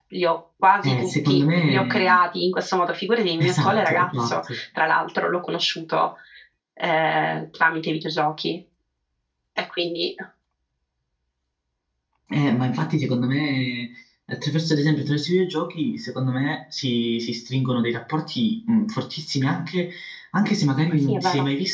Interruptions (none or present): present